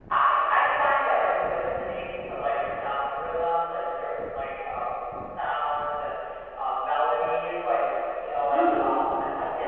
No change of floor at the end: Yes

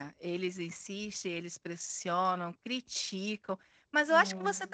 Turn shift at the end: No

